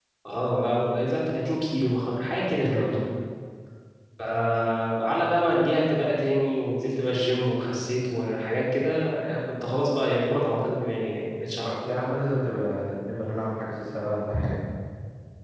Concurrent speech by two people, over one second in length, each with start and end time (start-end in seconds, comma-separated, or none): none